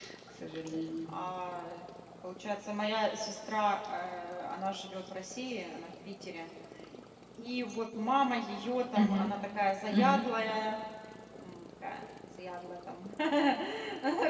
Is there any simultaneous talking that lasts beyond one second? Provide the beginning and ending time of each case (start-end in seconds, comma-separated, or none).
none